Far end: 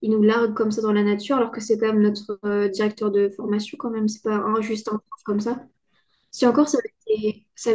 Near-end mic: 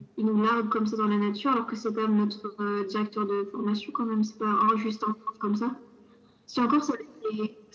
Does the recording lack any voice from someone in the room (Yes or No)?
Yes